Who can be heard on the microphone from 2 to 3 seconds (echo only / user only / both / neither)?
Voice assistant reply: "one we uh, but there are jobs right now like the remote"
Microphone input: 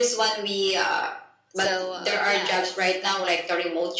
both